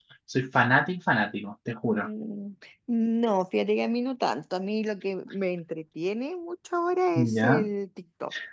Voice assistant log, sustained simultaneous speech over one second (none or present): none